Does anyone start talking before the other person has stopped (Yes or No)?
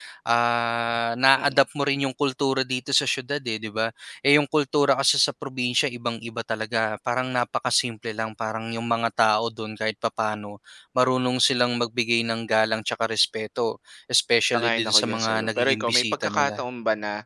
Yes